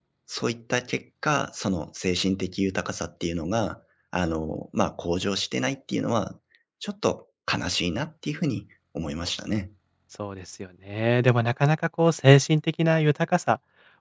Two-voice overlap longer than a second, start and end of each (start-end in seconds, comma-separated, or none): none